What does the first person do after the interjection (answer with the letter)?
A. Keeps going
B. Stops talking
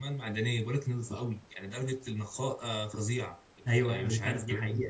B